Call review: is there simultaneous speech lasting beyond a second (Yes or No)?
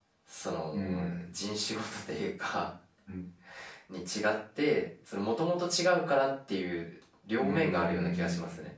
Yes